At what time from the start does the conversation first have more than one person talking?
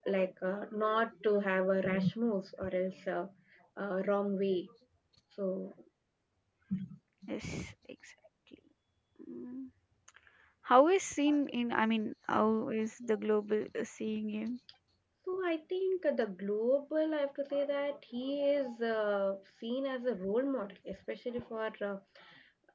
none

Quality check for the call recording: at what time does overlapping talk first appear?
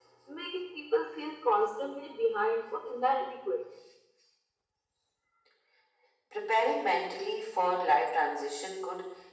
none

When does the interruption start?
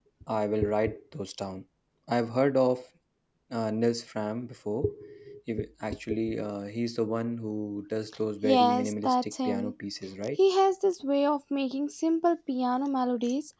8.4 s

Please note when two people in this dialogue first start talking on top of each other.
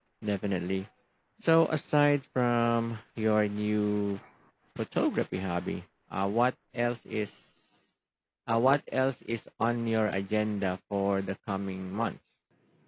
none

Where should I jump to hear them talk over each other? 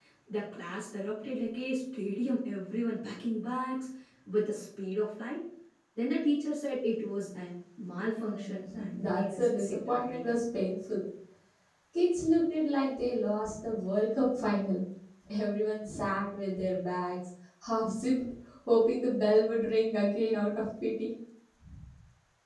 8.0 s

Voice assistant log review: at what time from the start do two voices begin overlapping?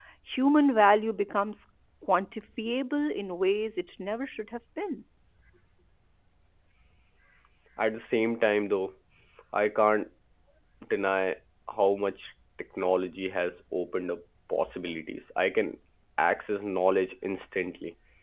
none

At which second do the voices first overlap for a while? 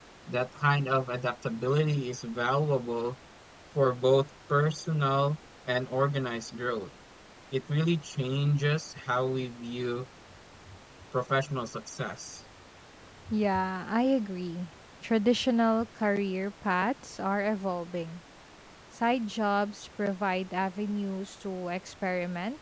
none

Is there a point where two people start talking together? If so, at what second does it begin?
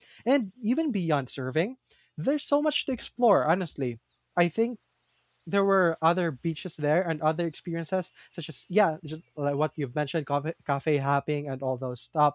none

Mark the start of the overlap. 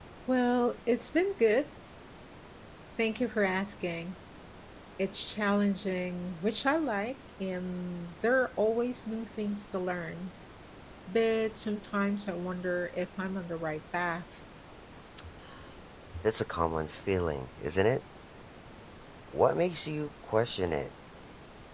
none

